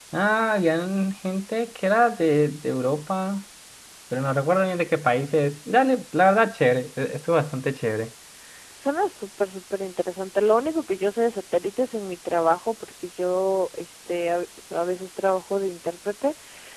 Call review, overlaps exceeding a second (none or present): none